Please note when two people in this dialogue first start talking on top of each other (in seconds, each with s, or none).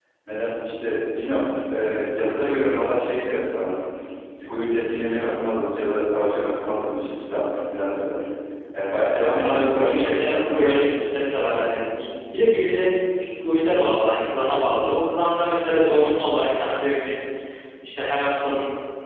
9.4 s